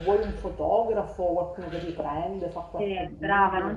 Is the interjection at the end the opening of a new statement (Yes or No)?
Yes